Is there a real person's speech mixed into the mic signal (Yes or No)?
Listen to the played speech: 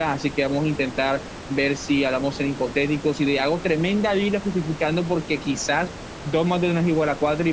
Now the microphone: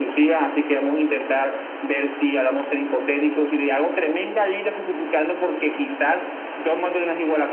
No